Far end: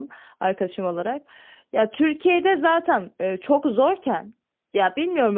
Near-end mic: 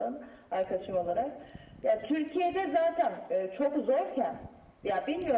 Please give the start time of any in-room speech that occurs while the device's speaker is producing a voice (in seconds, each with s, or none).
none